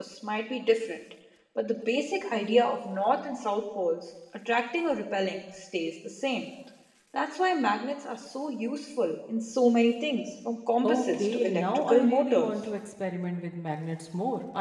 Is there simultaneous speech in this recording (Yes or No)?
Yes